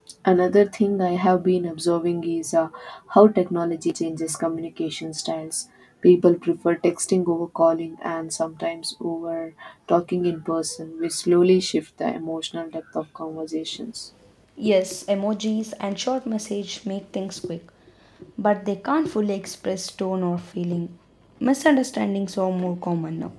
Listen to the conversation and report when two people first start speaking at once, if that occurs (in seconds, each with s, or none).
none